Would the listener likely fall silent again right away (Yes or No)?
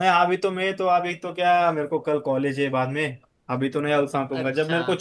Yes